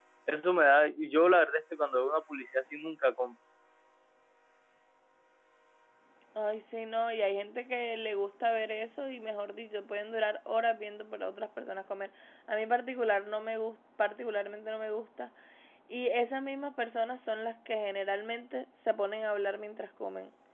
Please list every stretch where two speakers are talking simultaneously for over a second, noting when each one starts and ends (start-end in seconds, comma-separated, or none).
none